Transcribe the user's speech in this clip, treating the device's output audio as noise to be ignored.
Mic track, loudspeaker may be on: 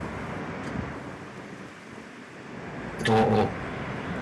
어, 어.

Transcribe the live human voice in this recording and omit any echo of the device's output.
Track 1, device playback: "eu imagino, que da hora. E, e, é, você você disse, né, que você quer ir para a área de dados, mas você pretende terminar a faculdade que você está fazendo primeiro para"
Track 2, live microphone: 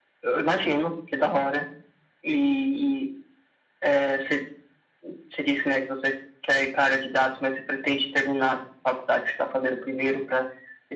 none

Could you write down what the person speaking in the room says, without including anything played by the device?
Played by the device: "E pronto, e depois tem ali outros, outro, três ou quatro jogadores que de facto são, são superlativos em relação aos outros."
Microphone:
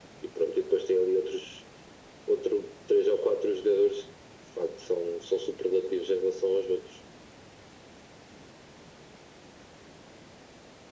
none

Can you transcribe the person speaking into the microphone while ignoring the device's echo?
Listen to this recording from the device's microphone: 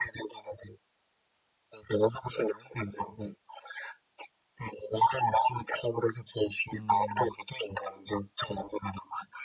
嗯，

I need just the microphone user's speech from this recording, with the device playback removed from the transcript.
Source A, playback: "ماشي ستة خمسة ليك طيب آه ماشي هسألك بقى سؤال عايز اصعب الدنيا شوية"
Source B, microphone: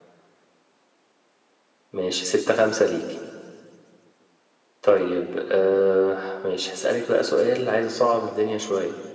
none

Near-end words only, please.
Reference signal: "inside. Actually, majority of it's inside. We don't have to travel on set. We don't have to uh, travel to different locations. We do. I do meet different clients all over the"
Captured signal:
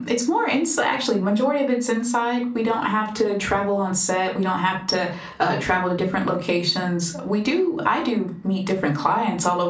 none

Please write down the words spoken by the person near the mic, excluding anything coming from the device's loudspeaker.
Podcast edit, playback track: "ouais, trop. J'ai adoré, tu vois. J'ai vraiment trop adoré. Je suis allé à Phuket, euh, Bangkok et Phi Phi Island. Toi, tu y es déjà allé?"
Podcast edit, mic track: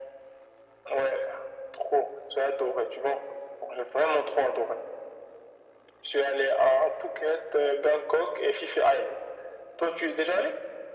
none

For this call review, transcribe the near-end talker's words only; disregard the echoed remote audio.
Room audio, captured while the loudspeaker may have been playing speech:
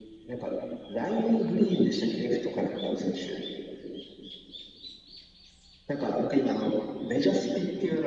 none

